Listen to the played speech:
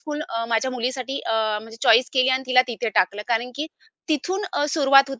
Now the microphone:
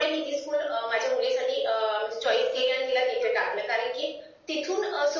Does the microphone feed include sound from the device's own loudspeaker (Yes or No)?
Yes